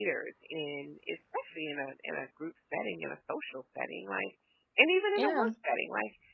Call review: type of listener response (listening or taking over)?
listening